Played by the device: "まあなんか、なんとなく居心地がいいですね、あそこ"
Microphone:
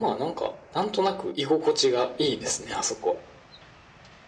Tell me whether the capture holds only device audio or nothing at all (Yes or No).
Yes